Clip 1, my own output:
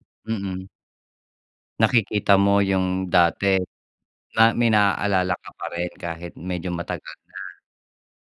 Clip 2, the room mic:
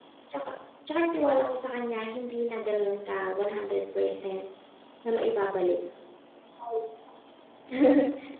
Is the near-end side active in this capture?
Yes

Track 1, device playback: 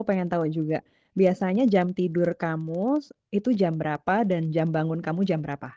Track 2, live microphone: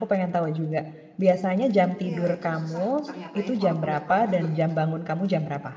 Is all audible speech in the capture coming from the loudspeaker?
No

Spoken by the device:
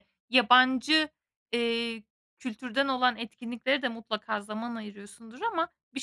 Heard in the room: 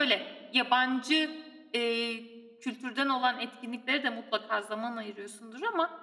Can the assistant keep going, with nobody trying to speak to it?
Yes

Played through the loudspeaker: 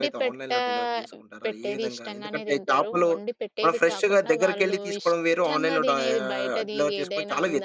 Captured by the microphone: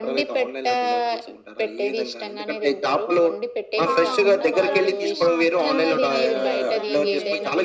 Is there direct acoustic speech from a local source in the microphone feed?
Yes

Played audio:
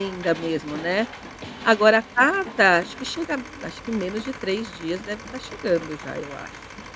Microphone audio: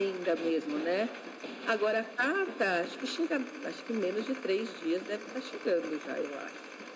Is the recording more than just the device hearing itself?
No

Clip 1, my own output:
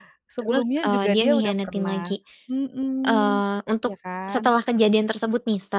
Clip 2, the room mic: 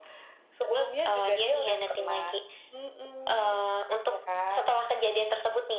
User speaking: No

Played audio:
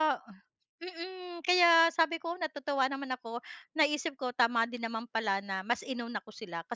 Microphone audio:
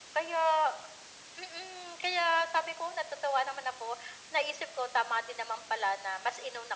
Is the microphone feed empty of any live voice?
Yes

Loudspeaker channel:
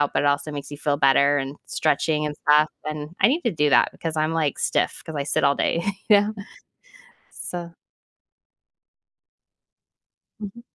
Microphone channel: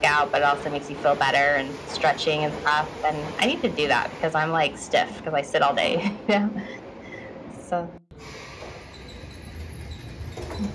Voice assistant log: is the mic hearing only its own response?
Yes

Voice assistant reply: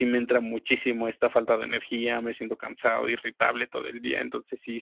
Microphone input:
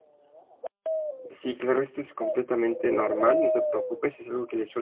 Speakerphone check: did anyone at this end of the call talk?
Yes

